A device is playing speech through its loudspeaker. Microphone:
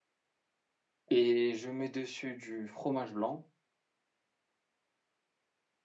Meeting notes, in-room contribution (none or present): present